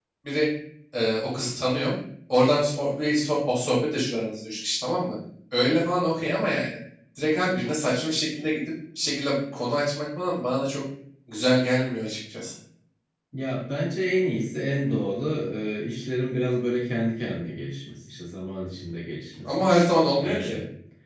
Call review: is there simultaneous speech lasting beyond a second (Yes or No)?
No